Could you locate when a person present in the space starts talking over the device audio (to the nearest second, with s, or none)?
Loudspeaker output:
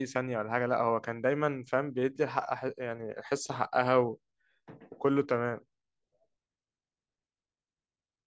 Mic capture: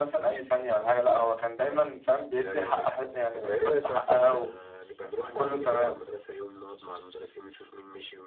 2 s